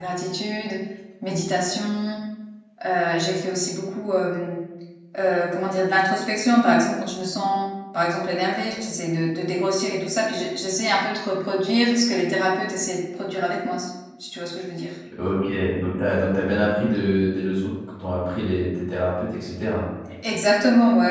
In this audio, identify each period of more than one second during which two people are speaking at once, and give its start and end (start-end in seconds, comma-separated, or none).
none